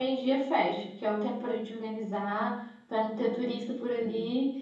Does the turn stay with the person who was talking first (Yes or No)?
Yes